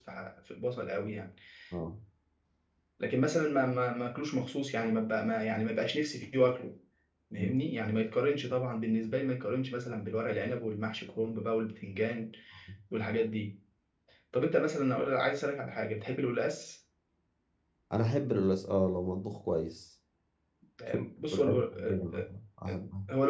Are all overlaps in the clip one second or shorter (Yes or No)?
No